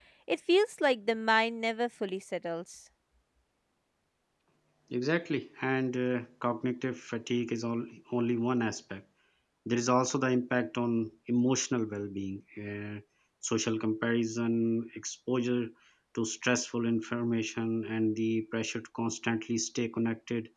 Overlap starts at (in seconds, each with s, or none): none